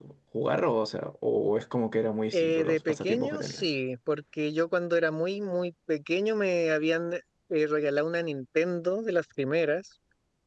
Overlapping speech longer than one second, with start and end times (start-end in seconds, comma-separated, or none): 2.3-3.7